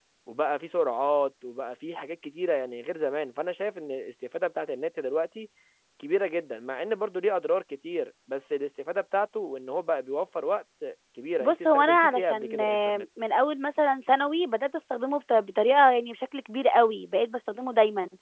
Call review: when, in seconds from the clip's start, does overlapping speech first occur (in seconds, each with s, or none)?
11.4 s